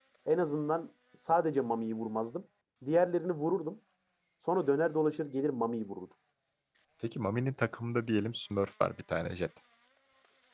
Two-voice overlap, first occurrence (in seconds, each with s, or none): none